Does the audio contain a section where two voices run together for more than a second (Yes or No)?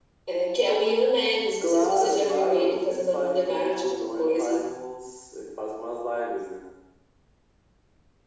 Yes